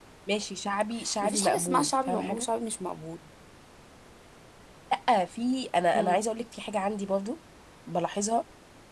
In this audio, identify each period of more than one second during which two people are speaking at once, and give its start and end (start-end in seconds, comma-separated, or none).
1.2-2.5